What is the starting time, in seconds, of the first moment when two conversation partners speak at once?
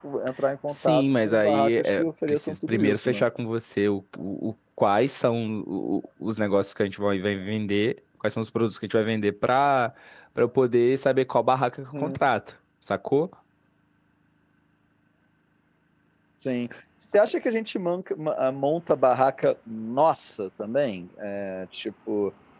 0.7 s

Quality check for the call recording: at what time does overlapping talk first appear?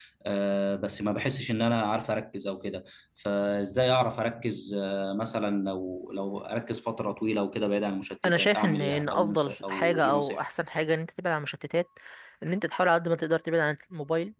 8.2 s

